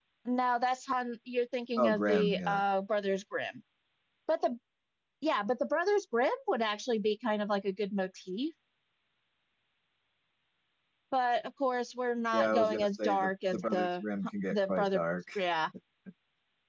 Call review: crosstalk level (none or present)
present